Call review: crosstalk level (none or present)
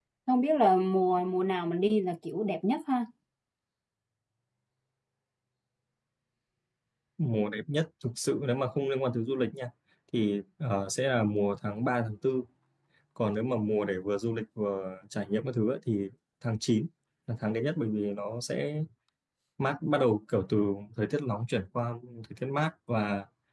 none